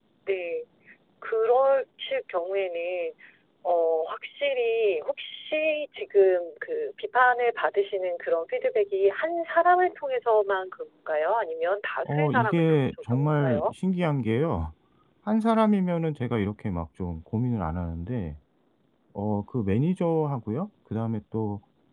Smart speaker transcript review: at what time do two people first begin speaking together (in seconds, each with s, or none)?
12.1 s